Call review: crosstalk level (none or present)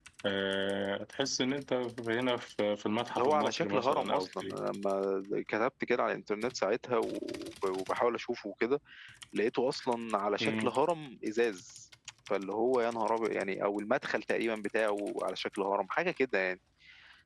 present